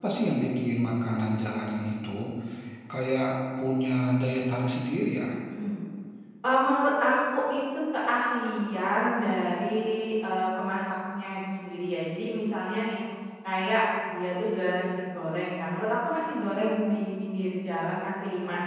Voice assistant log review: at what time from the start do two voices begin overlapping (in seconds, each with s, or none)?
none